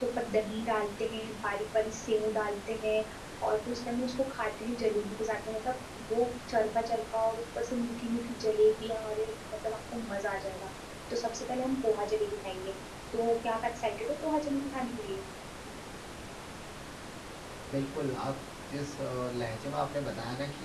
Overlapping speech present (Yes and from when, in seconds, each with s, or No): No